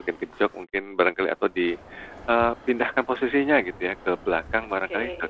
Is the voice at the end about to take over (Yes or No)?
No